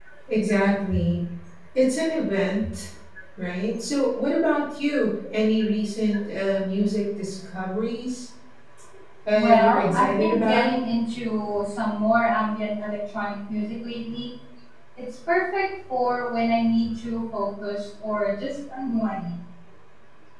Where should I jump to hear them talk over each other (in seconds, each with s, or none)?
9.3 s